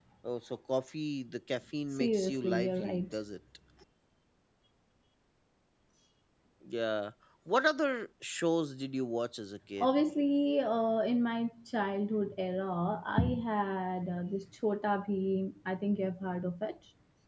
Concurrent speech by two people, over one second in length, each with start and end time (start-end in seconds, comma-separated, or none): 1.9-3.1